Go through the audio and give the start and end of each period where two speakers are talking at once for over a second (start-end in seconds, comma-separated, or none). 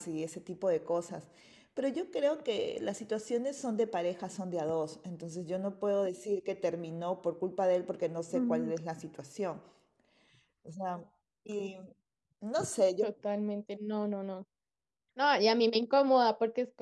none